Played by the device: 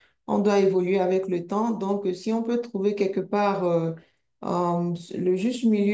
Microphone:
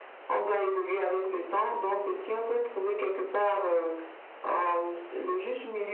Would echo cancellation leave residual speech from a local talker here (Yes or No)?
No